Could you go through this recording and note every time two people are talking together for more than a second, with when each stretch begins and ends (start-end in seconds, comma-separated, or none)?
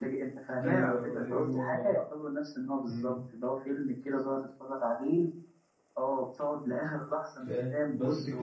0.6-1.9